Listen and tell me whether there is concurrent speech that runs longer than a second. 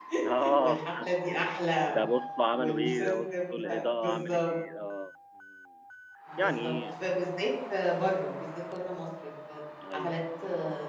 Yes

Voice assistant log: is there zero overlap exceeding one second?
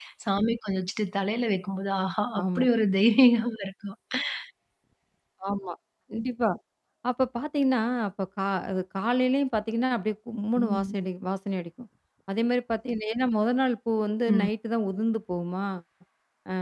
Yes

